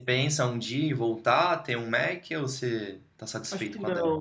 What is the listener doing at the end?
taking over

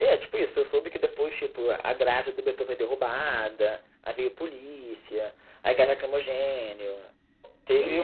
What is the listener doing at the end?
listening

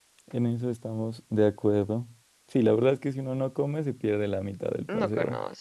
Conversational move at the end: taking over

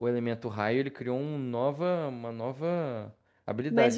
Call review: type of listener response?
taking over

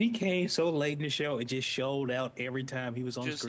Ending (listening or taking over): taking over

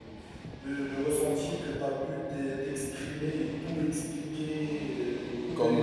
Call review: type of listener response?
listening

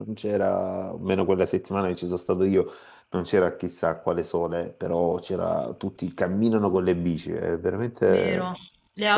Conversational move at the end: taking over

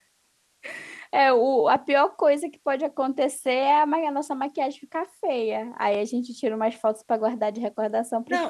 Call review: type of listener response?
taking over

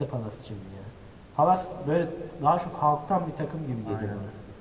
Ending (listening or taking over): taking over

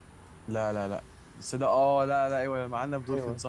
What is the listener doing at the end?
taking over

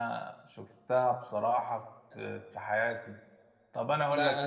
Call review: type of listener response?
taking over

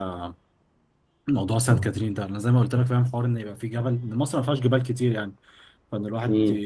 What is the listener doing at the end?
listening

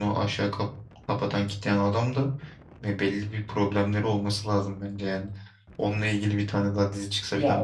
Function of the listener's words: taking over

